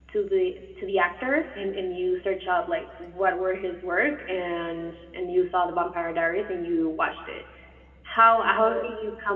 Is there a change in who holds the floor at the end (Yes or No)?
No